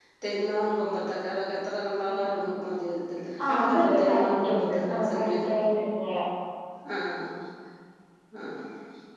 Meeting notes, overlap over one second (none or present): present